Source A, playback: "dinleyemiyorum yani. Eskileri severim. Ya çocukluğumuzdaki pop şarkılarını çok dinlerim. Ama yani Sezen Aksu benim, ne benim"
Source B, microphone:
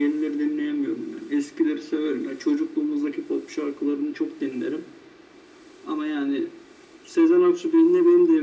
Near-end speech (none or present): none